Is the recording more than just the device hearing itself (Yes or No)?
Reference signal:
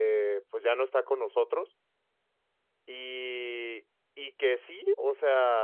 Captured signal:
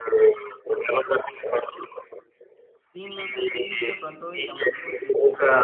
Yes